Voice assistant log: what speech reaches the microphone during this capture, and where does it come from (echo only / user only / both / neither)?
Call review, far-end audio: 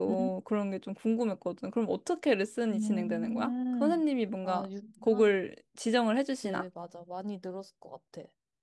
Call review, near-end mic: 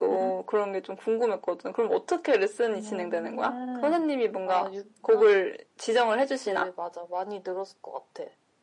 echo only